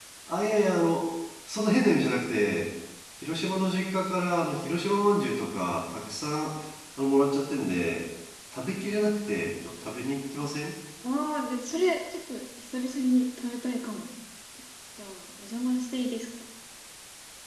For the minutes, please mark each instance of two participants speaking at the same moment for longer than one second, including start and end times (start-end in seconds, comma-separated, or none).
none